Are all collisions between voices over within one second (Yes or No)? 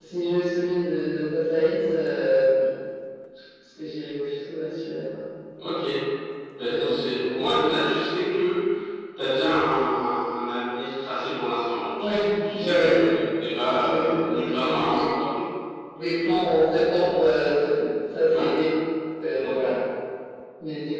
No